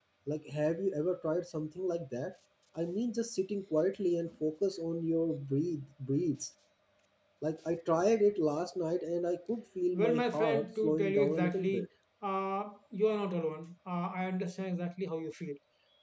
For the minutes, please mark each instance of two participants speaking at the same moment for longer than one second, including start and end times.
9.9-11.9

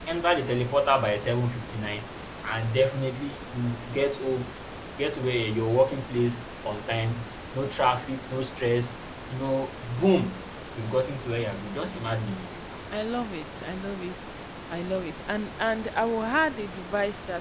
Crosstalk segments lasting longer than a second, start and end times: none

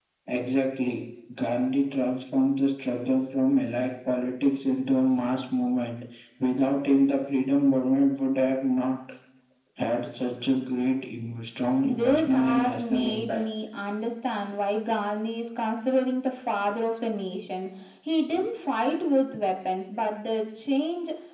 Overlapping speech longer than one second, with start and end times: 11.9-13.4

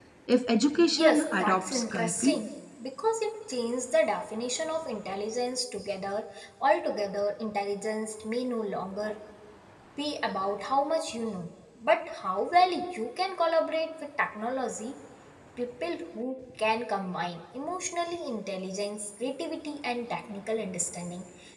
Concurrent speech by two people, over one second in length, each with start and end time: 0.9-2.4

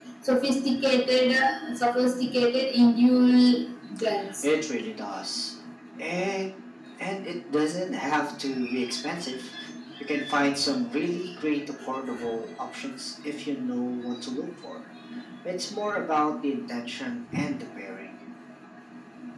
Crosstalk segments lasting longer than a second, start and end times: none

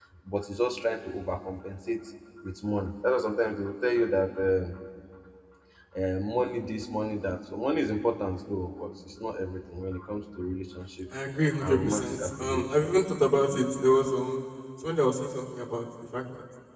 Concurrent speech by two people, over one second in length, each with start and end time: 11.6-12.9

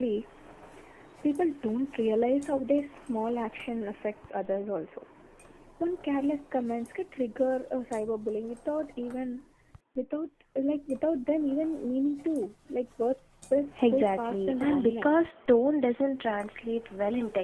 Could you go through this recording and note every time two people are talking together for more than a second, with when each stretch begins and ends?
13.8-15.2

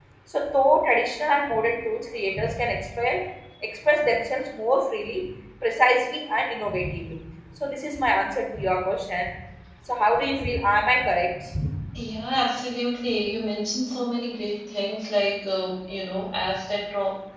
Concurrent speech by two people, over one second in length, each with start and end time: none

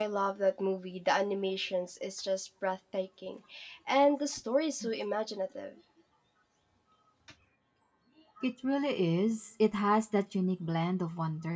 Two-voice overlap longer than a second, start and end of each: none

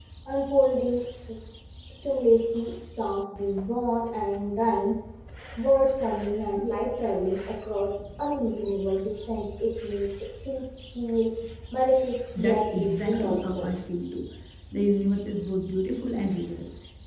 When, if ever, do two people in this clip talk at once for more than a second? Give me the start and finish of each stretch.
12.4-13.7

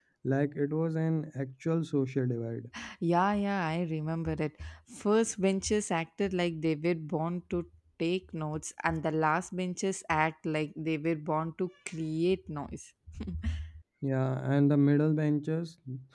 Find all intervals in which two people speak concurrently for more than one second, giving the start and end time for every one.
none

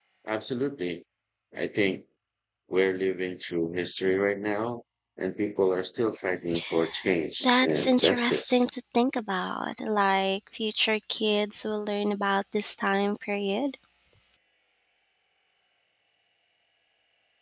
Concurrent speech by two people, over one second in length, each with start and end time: 7.4-8.7

